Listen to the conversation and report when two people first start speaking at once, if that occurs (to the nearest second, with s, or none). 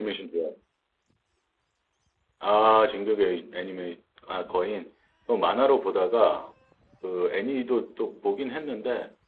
none